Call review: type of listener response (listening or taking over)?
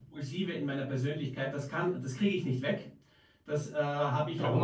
listening